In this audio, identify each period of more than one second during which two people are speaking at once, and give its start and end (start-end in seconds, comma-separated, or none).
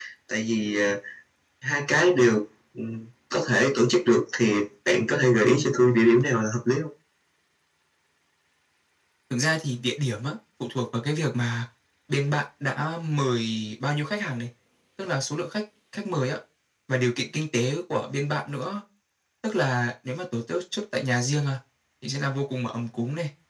none